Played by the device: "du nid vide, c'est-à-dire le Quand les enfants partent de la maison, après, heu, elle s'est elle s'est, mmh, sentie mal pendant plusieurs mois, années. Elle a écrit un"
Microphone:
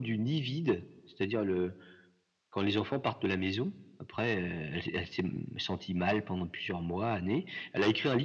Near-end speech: none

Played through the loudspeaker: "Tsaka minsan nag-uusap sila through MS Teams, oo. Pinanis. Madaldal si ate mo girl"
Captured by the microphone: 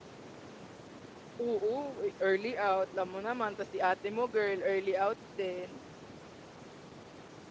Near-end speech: present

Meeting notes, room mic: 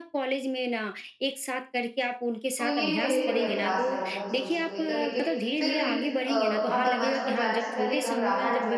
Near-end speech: present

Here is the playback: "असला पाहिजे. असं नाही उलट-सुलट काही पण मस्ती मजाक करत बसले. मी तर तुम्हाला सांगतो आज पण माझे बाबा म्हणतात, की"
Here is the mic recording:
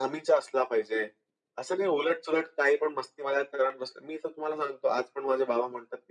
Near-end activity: none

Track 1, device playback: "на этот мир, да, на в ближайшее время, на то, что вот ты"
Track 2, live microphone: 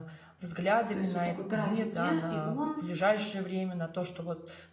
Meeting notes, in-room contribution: present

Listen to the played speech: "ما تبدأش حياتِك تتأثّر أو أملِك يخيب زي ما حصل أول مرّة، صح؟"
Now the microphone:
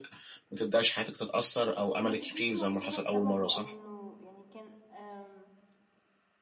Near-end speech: present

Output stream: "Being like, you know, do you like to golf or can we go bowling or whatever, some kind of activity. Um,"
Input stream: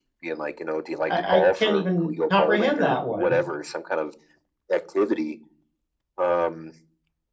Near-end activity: present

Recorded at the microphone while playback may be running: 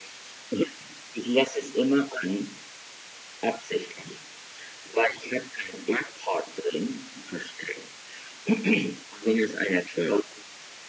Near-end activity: none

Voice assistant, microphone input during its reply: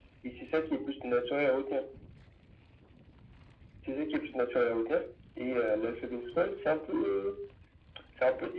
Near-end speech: none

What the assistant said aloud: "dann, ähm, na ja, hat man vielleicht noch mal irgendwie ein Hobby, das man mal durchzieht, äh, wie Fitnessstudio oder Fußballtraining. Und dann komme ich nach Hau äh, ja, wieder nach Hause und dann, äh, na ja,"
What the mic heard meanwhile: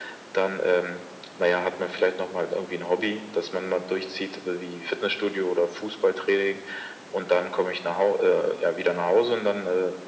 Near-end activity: none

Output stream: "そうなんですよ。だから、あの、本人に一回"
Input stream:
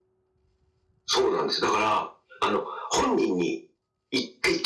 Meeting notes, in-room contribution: none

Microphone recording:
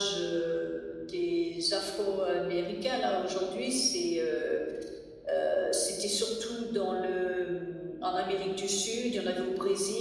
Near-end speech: none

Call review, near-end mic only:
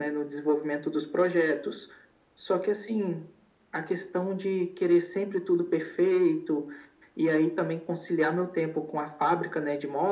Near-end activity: none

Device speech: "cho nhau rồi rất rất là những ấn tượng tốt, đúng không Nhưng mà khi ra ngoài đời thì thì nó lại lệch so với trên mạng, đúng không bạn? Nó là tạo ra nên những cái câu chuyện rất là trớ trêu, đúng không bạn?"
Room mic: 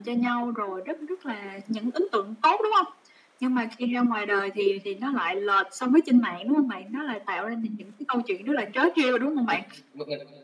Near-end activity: present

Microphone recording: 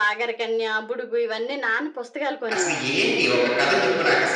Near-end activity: present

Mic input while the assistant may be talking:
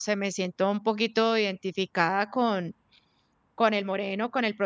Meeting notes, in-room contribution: present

